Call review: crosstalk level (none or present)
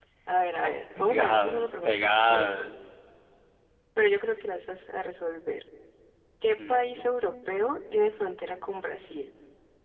present